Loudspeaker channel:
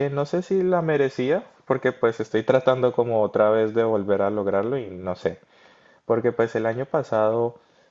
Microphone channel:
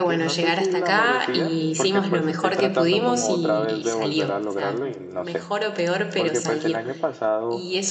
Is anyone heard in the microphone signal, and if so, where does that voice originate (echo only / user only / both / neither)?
both